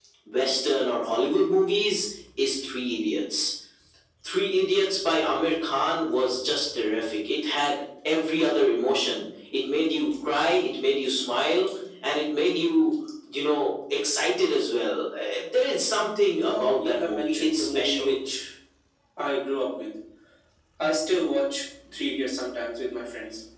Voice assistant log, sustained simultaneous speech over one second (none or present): present